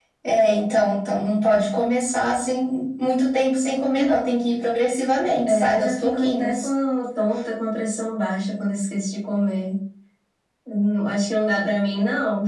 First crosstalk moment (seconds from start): 5.5 s

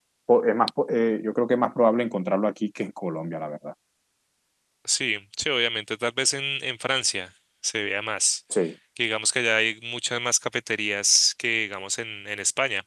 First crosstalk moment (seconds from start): none

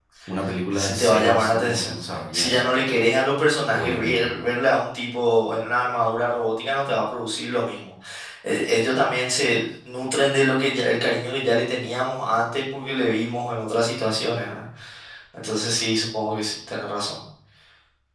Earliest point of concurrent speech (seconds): 0.7 s

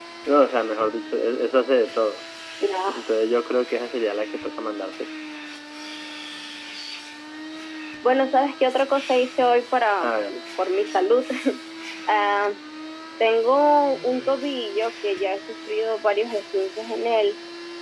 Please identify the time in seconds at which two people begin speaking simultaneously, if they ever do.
none

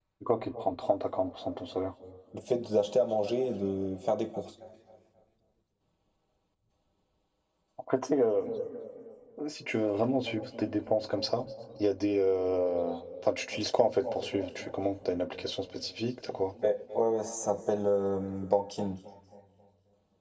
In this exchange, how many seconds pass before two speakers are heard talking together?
none

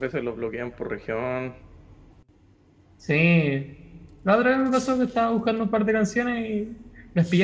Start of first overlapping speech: none

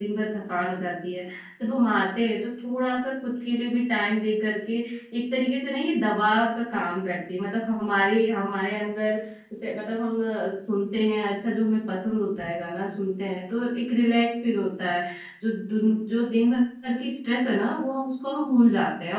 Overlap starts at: none

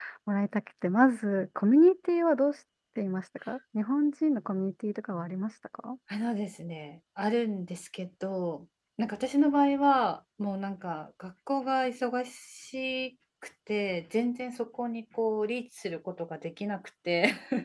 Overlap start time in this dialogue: none

